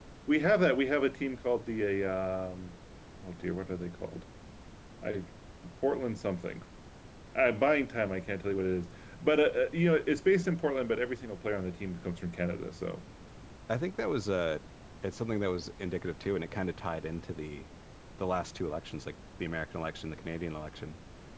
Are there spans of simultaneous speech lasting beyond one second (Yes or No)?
No